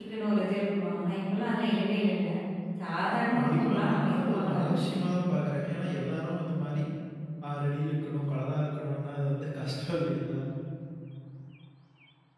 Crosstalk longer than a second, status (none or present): present